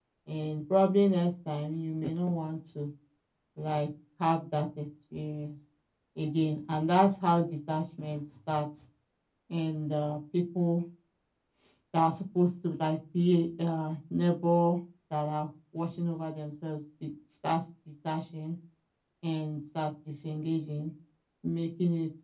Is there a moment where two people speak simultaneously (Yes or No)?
No